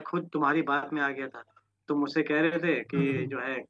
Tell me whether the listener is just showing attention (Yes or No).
Yes